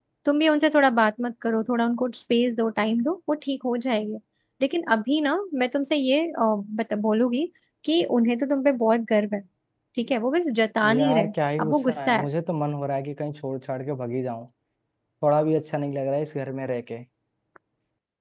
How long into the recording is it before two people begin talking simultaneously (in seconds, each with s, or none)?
10.8 s